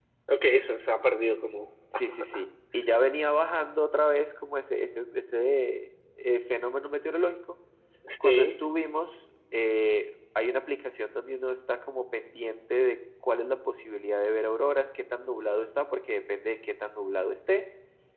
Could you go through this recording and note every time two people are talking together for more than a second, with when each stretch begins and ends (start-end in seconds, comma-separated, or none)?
none